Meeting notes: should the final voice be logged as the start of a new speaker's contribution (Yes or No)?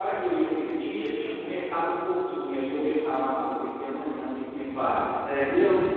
Yes